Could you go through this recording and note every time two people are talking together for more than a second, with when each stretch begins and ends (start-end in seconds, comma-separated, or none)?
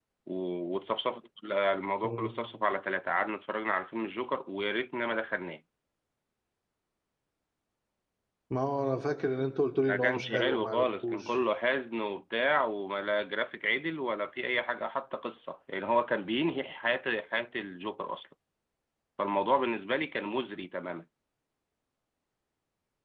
9.9-11.4